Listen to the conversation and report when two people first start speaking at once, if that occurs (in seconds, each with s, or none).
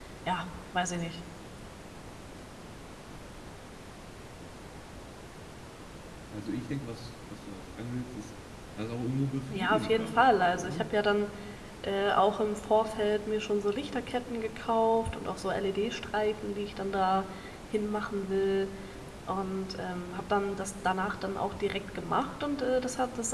9.5 s